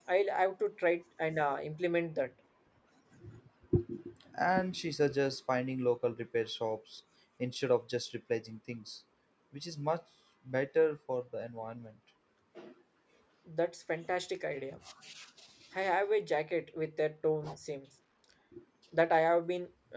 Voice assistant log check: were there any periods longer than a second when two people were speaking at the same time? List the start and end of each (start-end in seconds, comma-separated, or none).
none